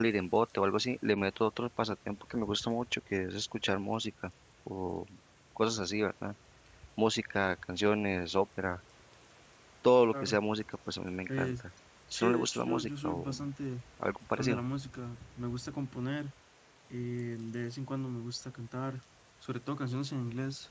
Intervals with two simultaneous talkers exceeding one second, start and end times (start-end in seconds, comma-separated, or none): 12.1-13.4